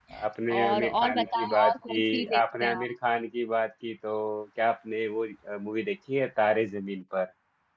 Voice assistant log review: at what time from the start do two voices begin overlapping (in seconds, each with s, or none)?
0.6 s